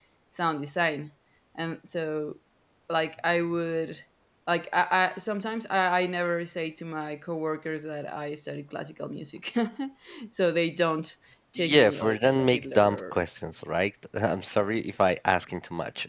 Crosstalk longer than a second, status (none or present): present